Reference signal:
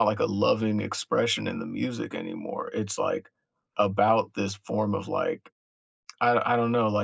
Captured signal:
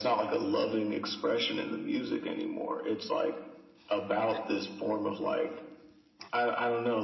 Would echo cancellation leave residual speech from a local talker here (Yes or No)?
No